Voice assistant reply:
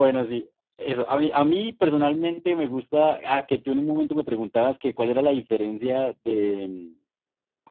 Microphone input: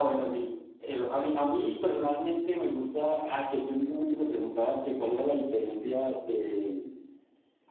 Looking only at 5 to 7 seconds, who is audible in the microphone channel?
echo only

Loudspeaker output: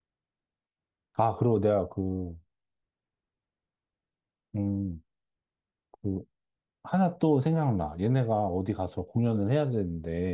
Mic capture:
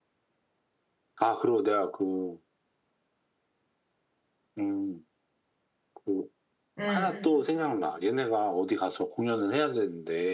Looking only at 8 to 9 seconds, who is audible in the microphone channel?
echo only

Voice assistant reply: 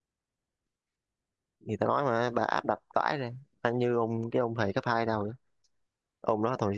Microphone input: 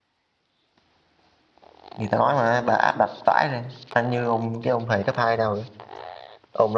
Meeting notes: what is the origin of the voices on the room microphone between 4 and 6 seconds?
echo only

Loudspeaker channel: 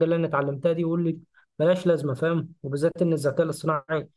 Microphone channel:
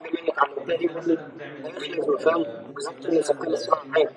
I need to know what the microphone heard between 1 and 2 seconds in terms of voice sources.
both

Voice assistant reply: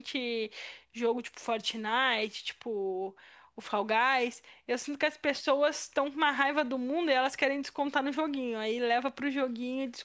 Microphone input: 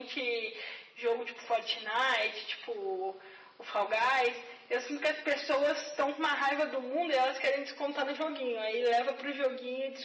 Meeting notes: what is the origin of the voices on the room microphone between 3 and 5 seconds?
echo only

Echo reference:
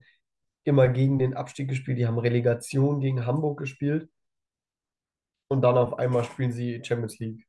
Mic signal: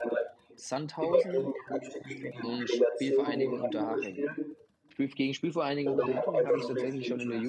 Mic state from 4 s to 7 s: both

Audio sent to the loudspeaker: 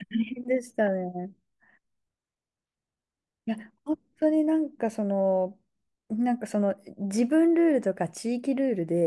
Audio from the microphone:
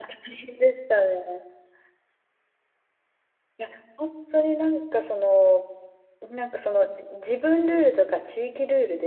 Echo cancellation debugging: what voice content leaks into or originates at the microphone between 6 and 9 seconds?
echo only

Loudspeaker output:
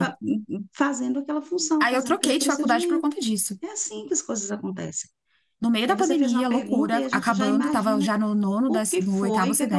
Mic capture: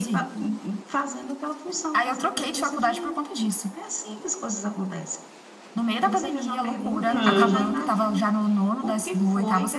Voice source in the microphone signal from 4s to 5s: echo only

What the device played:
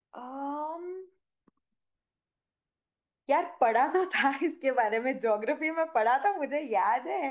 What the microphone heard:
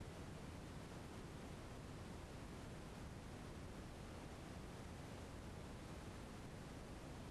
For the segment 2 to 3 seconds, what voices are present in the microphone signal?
neither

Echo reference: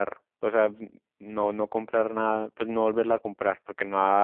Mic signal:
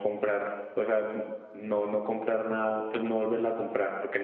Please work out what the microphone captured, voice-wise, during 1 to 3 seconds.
echo only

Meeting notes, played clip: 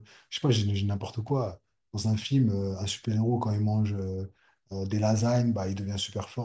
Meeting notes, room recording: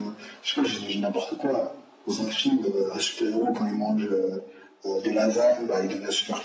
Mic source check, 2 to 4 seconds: echo only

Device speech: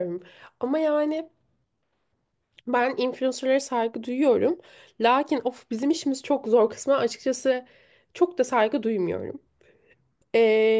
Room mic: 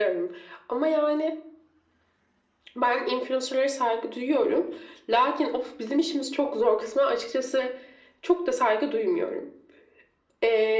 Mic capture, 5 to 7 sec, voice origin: echo only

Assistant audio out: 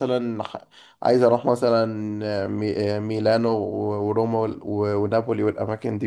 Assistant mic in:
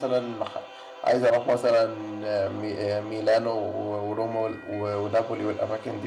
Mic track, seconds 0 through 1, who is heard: echo only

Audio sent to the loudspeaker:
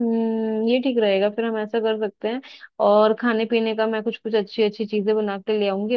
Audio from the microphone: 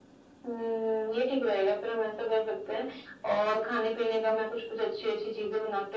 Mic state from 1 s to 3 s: echo only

